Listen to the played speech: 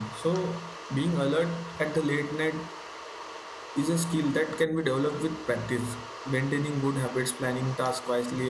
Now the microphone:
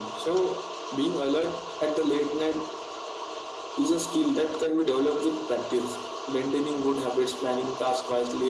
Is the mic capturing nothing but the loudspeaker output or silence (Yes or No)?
Yes